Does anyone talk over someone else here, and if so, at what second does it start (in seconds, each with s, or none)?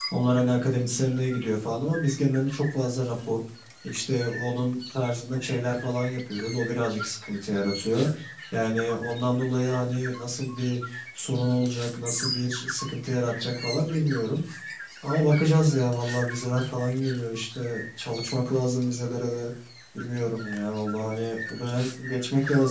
none